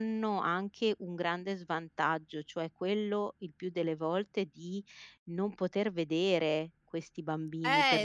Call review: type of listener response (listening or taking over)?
taking over